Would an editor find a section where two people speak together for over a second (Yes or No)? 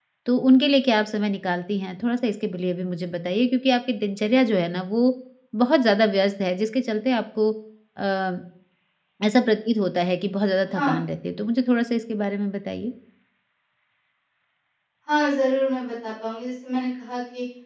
No